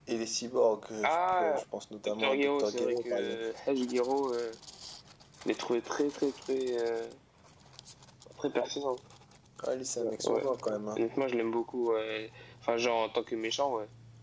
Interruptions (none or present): present